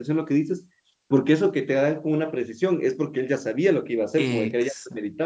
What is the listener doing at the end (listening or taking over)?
listening